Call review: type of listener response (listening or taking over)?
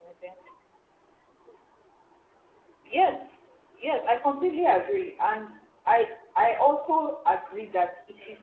listening